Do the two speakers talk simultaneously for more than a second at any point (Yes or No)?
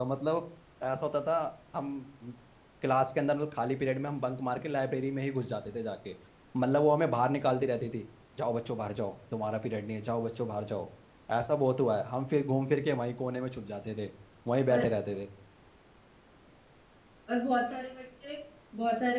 No